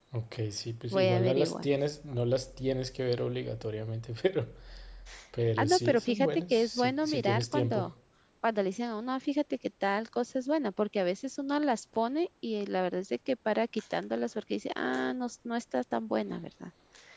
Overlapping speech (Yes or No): Yes